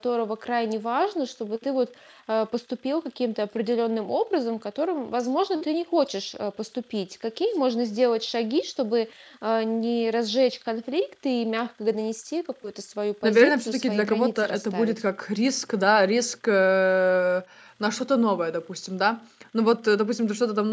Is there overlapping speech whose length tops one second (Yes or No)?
Yes